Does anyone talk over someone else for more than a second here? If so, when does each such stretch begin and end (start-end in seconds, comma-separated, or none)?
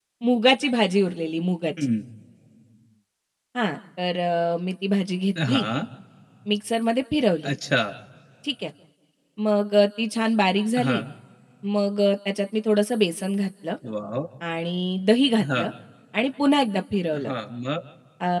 none